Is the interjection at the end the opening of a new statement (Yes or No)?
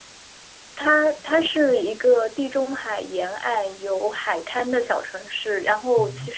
No